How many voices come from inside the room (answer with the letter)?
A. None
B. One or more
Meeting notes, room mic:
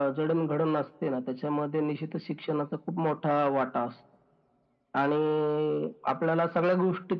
A